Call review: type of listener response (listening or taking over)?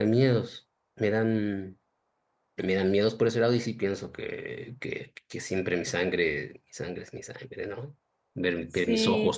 listening